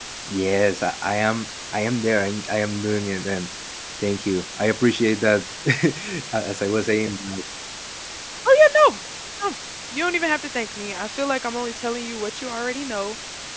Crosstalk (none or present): none